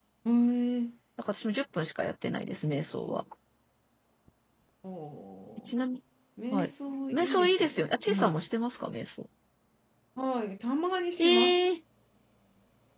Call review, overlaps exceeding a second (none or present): present